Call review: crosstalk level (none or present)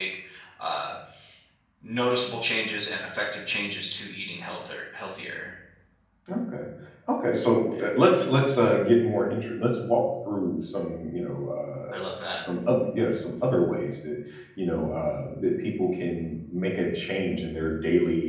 none